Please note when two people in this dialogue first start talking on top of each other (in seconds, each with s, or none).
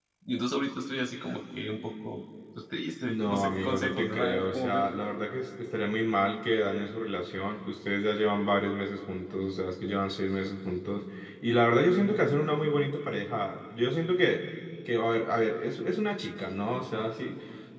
3.1 s